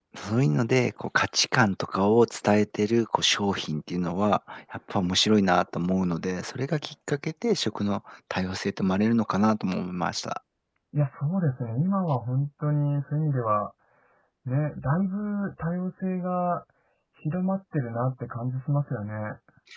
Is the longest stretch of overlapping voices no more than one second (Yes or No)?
Yes